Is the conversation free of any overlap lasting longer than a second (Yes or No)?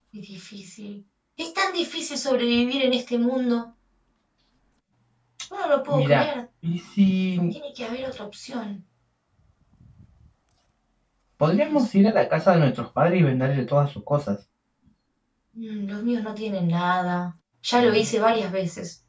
Yes